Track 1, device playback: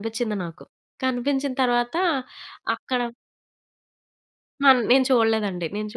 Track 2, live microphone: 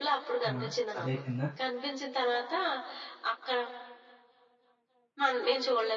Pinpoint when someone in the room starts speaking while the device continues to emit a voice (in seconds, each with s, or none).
0.5 s